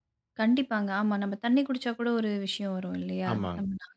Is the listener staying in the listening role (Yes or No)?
No